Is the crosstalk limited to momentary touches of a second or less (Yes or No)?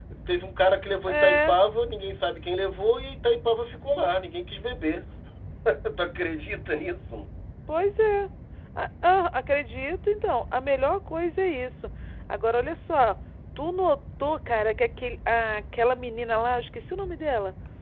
Yes